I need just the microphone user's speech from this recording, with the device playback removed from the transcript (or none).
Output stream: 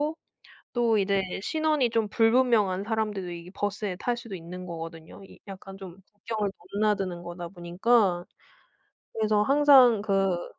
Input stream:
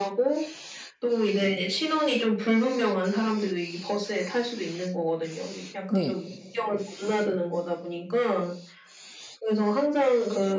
네.